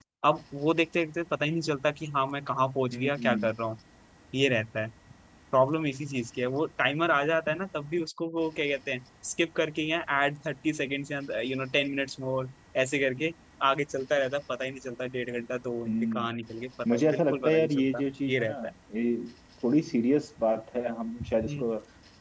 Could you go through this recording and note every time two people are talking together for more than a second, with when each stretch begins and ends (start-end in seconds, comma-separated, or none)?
16.9-18.6